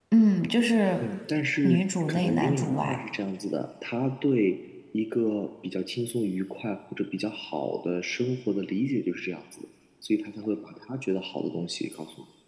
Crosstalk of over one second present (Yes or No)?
Yes